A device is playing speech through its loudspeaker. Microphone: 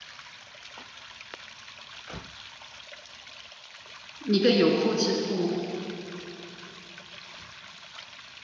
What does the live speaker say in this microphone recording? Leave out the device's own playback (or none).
一个有妇之夫，